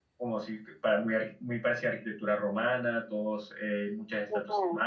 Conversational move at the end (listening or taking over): listening